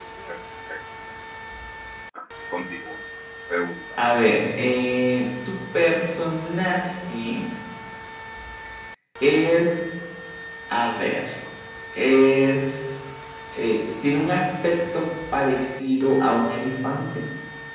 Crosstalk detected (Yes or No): No